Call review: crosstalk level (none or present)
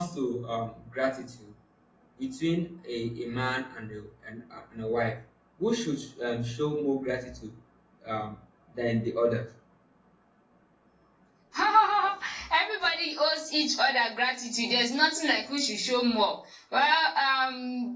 none